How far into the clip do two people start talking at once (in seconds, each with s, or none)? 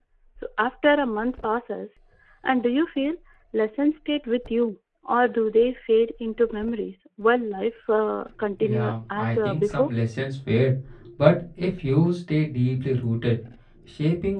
8.6 s